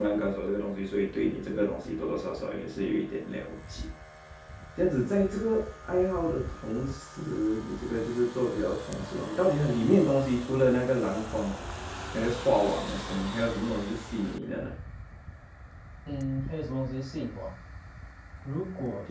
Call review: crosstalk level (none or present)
none